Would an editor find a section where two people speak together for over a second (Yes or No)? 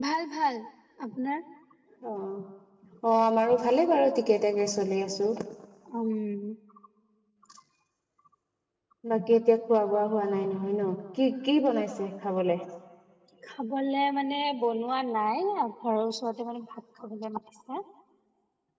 No